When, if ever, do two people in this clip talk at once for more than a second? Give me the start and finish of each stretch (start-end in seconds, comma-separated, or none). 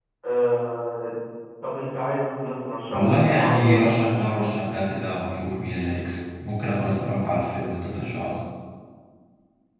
2.9-4.2